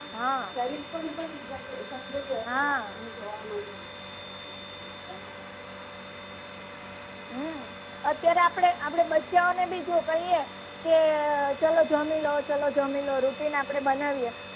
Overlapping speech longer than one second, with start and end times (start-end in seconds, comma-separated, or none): none